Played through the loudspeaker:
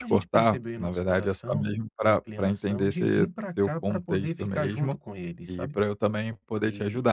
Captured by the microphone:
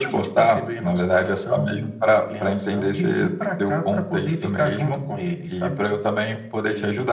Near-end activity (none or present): none